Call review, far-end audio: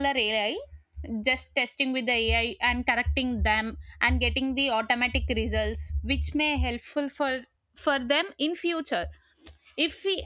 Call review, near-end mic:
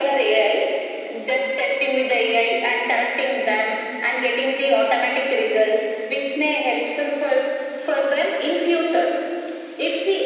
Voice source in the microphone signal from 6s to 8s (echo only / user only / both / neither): echo only